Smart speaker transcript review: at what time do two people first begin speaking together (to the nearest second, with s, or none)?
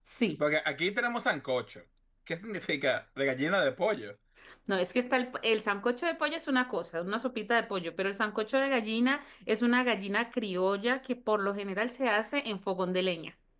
none